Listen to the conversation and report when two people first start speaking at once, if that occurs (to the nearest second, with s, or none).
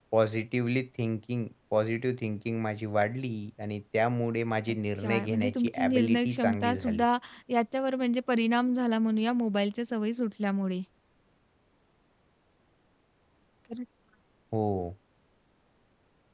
5 s